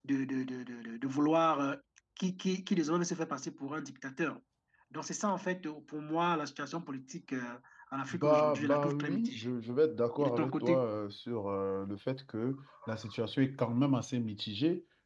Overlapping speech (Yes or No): Yes